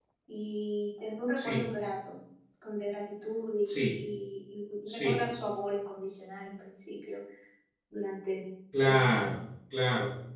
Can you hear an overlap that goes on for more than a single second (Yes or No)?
No